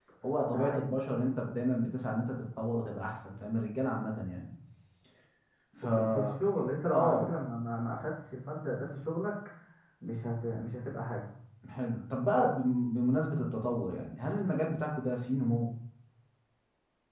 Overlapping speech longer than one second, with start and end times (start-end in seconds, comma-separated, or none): none